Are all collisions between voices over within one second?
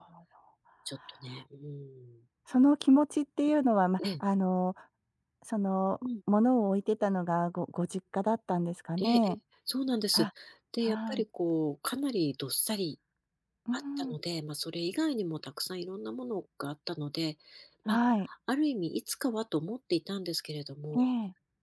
Yes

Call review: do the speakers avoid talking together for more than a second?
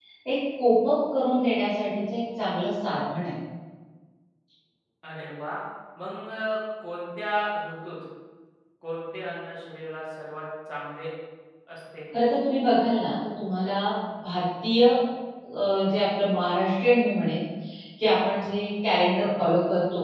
Yes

